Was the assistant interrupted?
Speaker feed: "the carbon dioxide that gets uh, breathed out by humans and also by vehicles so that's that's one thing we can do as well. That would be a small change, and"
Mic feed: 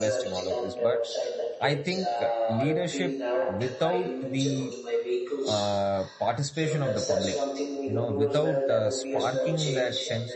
Yes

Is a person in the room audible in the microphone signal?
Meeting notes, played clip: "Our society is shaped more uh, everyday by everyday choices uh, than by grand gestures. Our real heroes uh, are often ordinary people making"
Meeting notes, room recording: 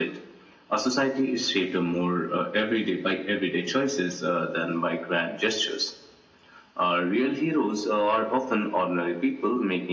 No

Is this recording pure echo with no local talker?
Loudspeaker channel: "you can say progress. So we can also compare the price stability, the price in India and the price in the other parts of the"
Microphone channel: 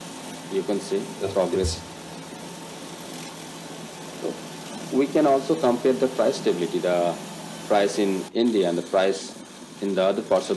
No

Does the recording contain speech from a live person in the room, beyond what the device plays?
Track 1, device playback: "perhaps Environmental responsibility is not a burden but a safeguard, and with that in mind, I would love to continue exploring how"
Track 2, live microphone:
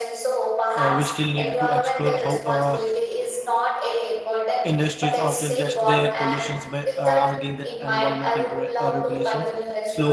Yes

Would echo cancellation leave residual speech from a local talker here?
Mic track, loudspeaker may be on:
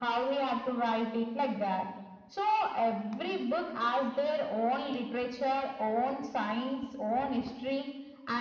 No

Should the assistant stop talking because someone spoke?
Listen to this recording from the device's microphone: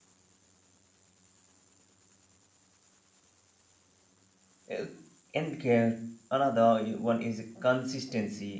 Yes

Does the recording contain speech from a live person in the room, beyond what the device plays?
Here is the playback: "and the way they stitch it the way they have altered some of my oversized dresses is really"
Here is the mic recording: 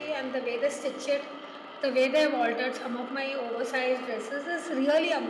No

